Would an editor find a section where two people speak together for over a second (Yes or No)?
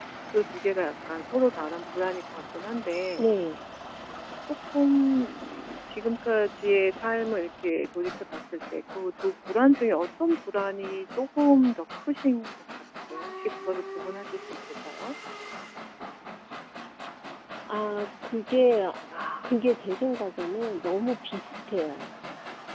No